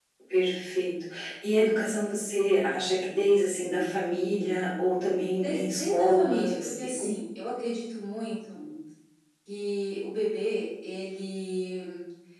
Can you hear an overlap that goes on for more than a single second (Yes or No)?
Yes